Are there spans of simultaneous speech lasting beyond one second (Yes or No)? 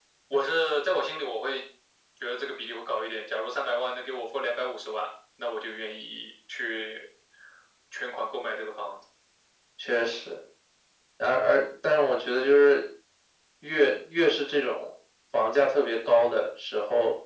No